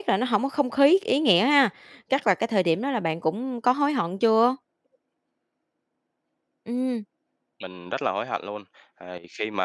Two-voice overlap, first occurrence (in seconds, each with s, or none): none